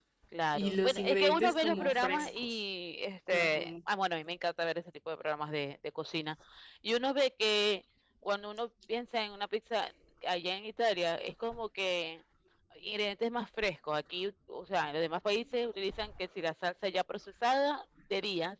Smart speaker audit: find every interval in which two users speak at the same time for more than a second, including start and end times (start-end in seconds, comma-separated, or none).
0.5-2.6